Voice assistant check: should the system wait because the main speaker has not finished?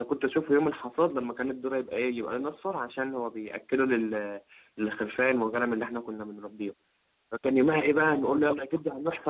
Yes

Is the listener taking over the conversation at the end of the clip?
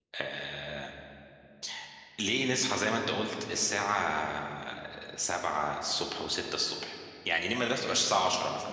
No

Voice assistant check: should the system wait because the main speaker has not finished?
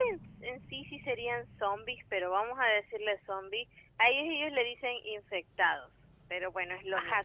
No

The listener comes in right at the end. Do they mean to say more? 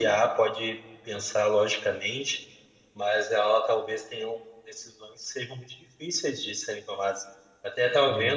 No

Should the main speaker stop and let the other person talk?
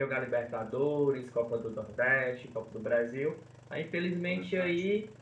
No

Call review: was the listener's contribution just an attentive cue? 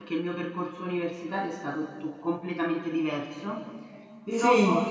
Yes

